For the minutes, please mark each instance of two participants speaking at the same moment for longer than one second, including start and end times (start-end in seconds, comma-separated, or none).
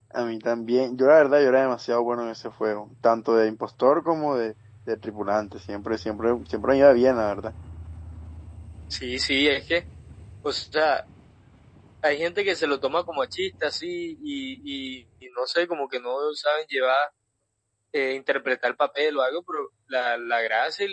none